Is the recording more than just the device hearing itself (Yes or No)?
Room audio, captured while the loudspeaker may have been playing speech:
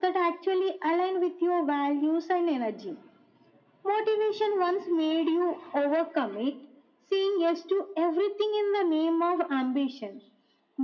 No